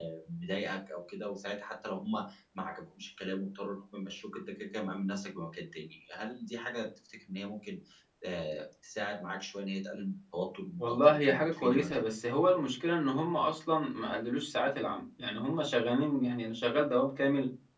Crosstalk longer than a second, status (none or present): present